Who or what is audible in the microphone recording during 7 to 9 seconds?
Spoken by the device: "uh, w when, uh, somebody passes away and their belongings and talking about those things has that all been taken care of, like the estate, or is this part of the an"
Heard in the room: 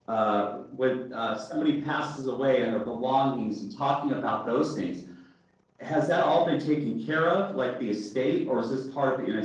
echo only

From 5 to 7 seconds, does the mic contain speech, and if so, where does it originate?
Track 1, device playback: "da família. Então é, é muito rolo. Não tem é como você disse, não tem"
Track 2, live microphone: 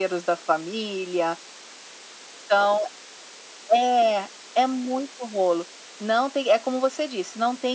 echo only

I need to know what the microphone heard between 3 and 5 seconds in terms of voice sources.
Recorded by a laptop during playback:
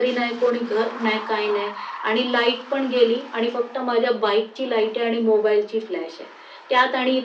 echo only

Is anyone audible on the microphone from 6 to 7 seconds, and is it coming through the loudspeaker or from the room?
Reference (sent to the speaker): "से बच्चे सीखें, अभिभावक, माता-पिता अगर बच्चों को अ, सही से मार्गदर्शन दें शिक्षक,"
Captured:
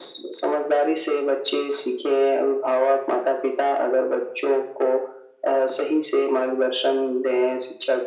echo only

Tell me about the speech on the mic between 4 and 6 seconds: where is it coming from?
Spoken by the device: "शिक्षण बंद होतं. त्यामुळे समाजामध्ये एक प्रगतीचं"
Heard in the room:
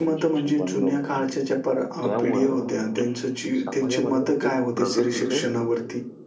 both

